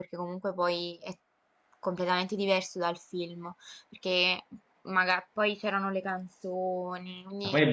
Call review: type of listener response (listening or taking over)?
taking over